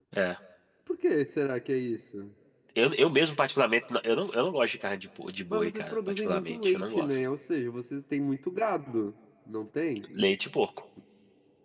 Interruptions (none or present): present